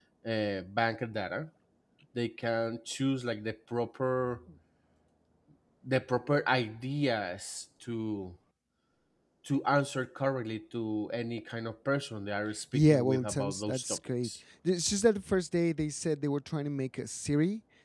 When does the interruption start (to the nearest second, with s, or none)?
13 s